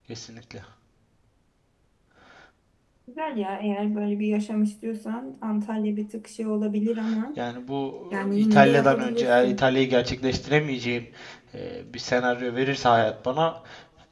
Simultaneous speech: Yes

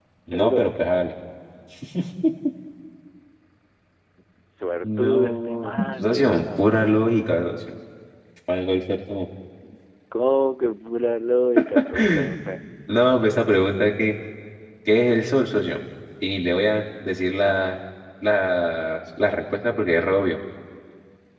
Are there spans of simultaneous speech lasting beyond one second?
Yes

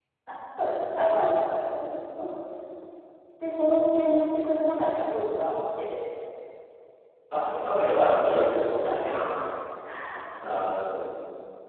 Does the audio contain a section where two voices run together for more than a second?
Yes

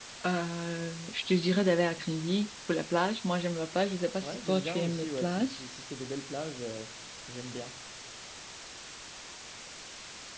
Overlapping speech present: Yes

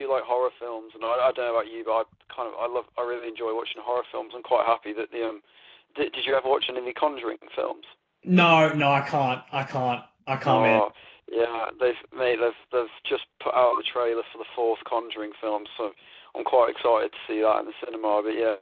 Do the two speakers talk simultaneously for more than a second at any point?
No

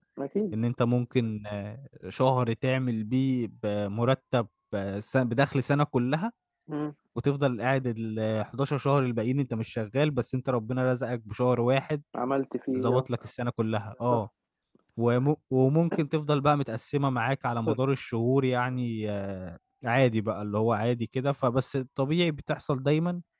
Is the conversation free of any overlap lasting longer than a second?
Yes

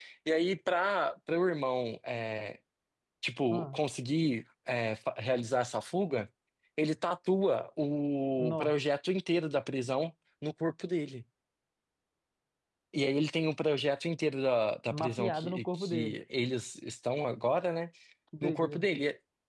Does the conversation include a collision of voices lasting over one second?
Yes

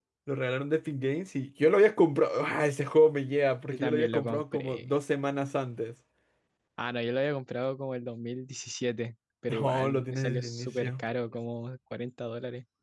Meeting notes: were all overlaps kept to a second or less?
No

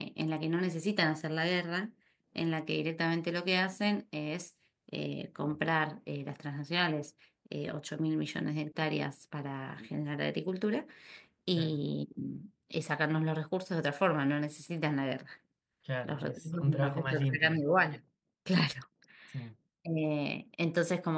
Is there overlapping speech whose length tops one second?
Yes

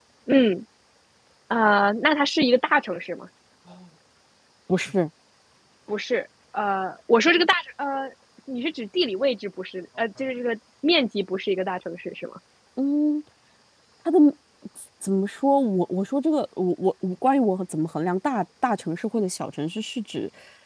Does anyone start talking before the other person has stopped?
No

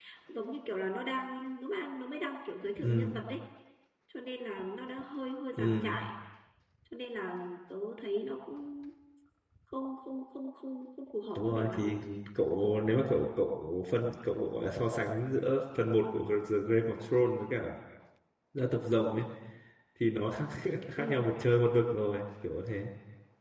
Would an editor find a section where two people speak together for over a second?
No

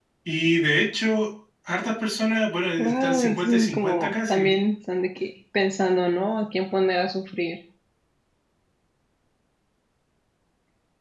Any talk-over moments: Yes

